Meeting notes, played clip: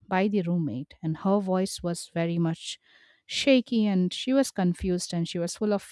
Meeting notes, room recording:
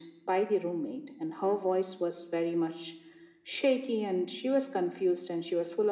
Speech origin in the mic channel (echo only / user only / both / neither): echo only